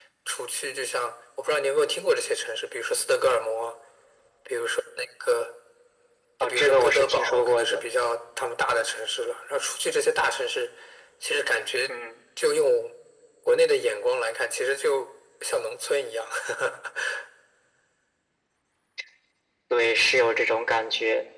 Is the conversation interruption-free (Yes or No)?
No